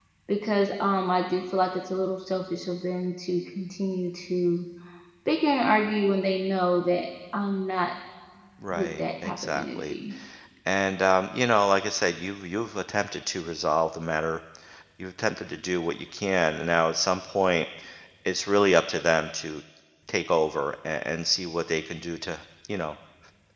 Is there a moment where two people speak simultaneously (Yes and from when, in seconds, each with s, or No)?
Yes, from 8.7 s